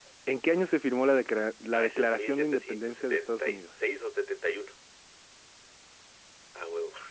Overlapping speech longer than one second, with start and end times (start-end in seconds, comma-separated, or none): 1.7-3.7